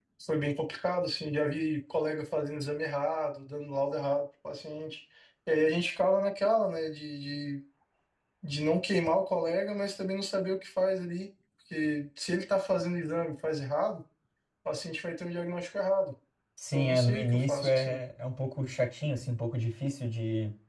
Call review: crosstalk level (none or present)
present